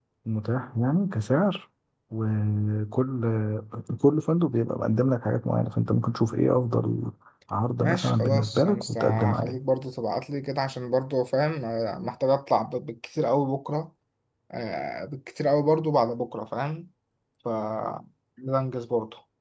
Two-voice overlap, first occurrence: 8 s

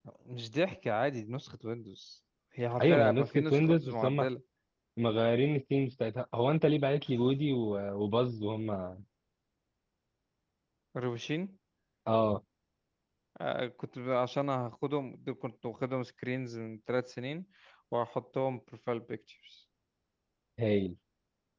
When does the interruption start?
3 s

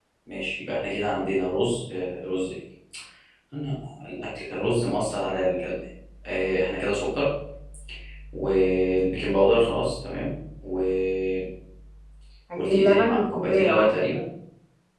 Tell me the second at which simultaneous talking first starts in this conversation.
13 s

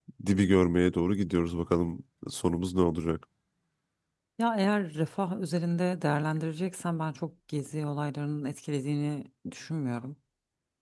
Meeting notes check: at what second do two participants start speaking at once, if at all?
none

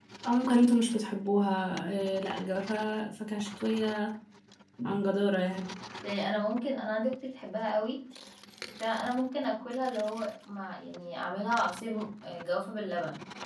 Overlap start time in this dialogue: none

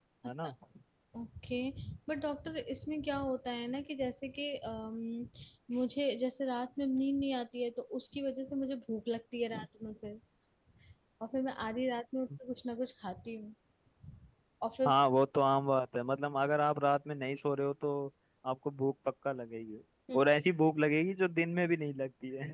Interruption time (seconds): none

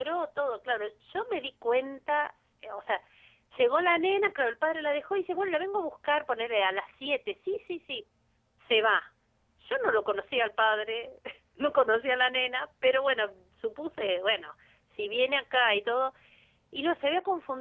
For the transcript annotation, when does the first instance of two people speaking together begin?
none

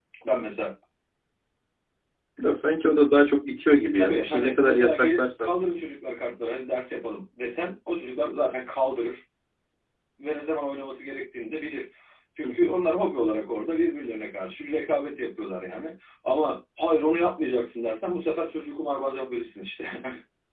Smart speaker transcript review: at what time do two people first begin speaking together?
4 s

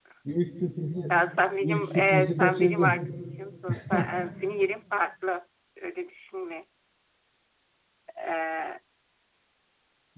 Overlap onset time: 2 s

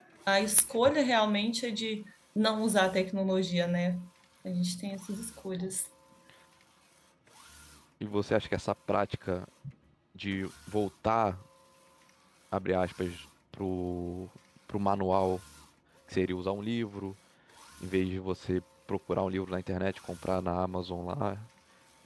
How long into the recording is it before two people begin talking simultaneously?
none

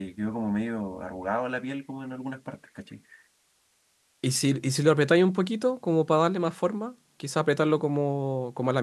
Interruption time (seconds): none

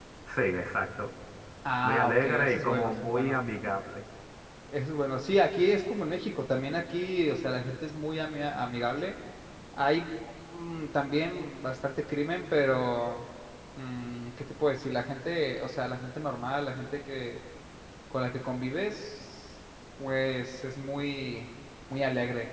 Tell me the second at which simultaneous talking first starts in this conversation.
2 s

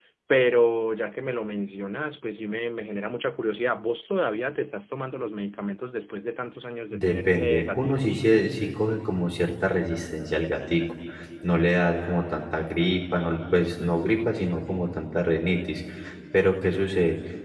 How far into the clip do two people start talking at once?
7 s

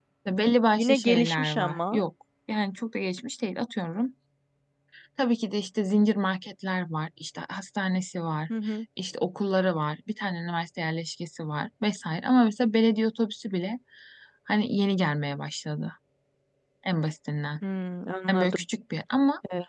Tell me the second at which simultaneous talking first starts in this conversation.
1 s

